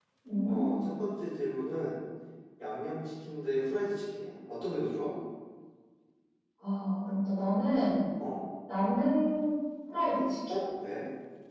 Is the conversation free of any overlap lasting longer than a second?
Yes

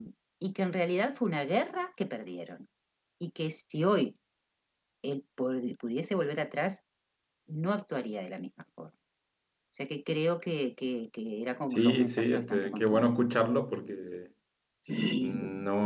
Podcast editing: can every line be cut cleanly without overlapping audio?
No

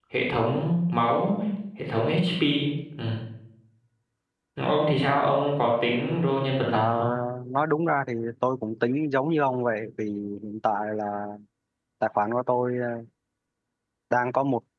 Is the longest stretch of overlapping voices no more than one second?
Yes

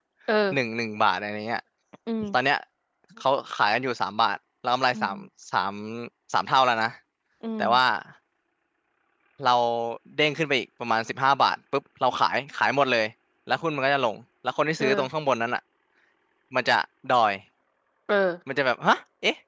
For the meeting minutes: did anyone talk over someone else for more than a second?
No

